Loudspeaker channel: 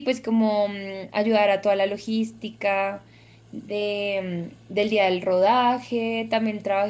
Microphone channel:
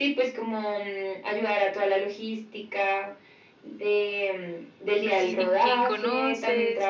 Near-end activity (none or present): present